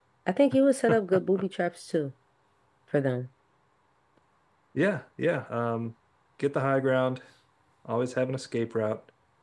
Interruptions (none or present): none